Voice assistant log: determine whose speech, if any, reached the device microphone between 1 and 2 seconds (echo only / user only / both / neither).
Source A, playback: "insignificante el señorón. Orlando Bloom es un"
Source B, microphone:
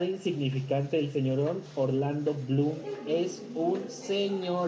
echo only